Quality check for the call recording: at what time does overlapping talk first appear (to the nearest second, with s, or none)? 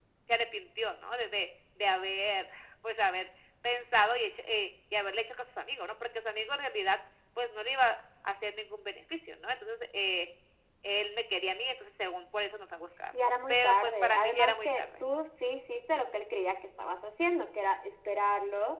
13 s